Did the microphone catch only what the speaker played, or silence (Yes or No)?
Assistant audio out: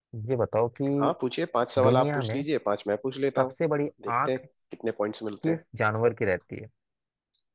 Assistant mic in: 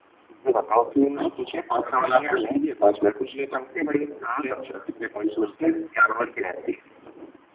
No